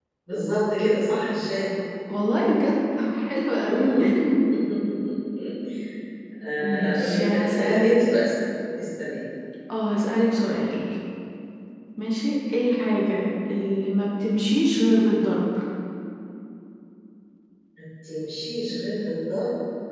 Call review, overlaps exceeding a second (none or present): present